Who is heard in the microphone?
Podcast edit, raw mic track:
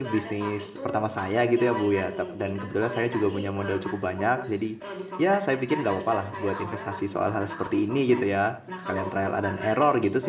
both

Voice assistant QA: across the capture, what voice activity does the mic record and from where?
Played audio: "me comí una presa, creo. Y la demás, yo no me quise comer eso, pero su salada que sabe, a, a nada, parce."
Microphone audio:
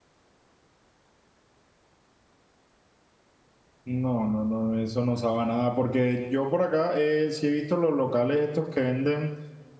user only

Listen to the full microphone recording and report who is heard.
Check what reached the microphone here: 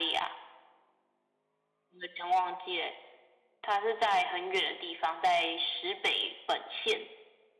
echo only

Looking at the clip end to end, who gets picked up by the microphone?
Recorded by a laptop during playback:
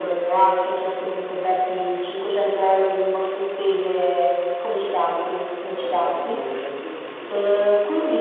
both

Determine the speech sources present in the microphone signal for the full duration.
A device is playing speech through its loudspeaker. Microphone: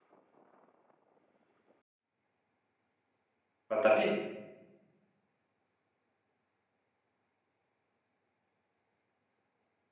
user only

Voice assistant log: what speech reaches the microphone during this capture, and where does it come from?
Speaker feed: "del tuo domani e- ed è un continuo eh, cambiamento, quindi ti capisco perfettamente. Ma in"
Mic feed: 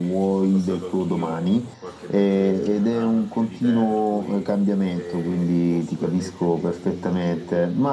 both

